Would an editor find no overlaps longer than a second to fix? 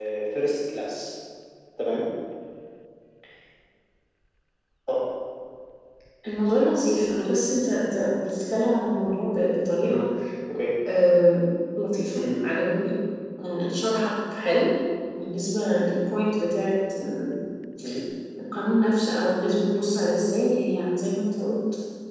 Yes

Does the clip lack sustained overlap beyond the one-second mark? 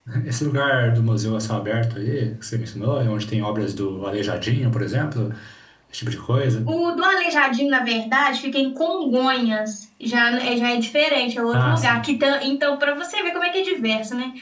Yes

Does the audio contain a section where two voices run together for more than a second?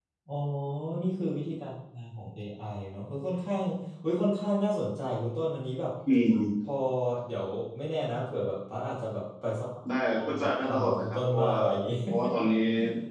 Yes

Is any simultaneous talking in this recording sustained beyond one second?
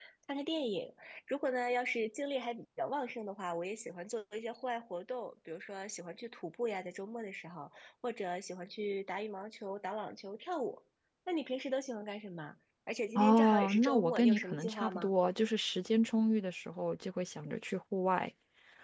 Yes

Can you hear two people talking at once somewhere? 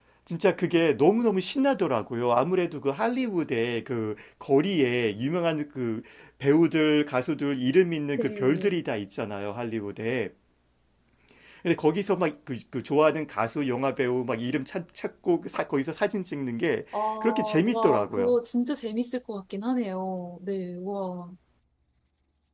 Yes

